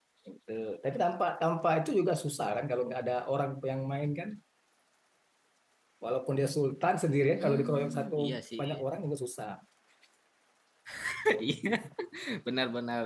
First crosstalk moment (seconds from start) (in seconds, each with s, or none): 7.4 s